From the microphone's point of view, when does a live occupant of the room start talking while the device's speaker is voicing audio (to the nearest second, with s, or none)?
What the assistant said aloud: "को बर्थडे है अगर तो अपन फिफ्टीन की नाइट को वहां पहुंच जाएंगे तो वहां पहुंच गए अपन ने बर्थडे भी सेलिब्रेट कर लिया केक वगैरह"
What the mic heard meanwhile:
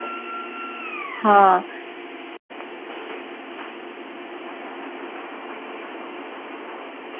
1 s